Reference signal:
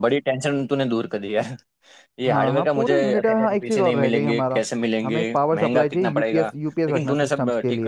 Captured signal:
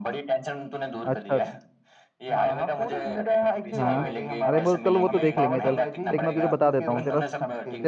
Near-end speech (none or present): present